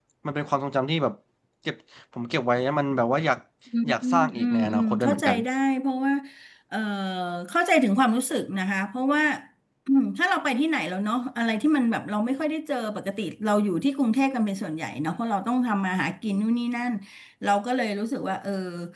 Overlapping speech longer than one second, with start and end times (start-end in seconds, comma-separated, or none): 3.9-5.4